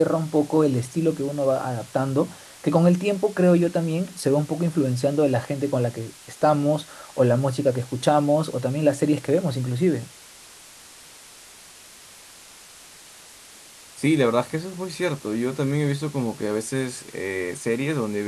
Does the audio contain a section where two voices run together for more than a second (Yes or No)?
No